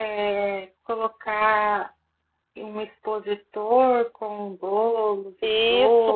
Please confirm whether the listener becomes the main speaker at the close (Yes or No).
Yes